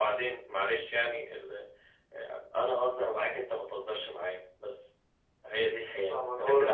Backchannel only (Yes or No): No